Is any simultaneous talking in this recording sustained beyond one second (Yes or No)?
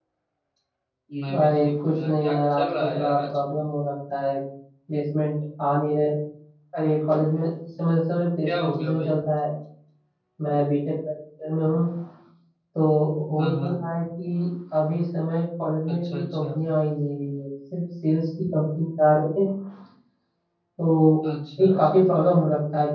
Yes